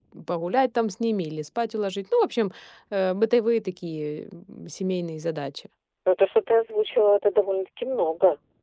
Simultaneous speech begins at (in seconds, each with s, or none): none